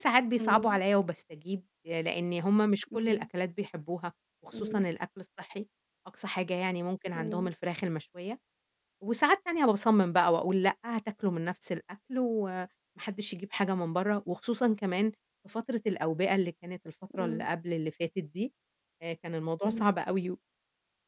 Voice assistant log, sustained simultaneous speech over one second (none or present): none